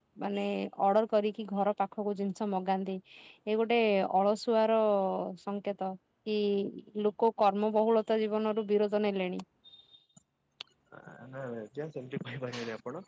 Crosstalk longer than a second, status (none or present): none